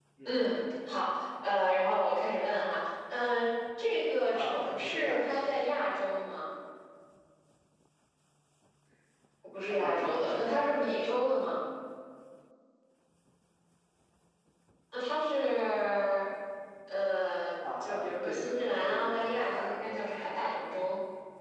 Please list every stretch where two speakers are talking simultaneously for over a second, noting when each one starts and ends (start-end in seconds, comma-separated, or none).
4.3-5.7, 9.6-11.1, 17.8-20.3